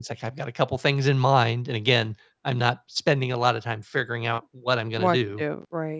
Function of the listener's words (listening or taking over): taking over